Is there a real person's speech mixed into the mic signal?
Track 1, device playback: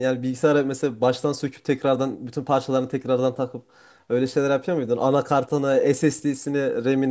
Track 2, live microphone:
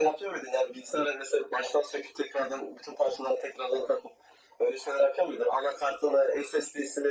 No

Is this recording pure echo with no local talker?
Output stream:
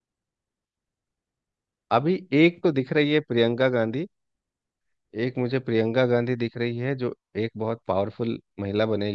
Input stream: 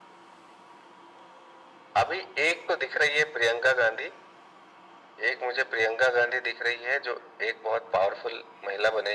Yes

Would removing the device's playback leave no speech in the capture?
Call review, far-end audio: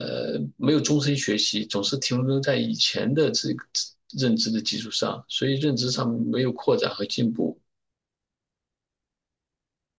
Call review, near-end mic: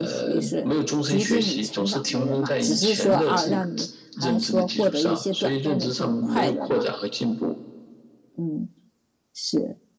No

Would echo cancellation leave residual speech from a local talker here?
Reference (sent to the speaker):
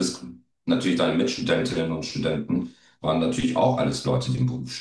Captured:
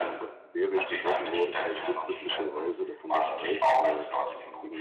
Yes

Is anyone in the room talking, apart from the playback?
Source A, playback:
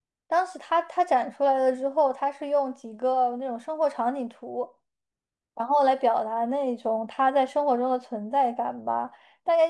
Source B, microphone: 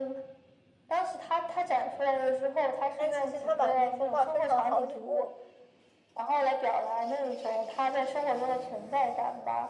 Yes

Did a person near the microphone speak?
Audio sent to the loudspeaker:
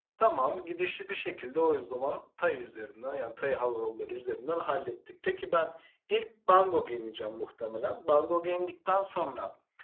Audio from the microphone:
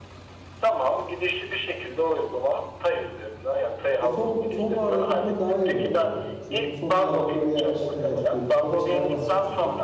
Yes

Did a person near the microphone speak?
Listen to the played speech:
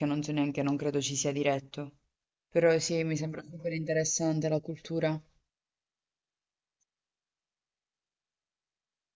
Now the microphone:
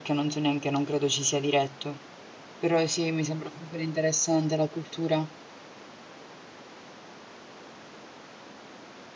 No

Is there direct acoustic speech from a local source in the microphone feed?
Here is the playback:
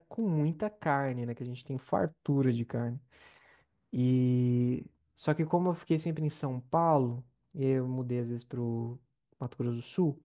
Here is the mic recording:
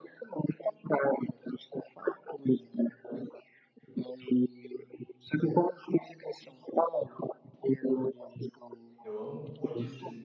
Yes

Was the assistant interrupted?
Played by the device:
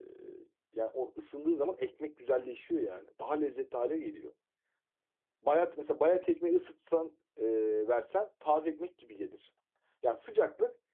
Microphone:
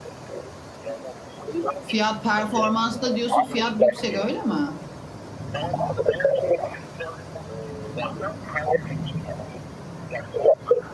Yes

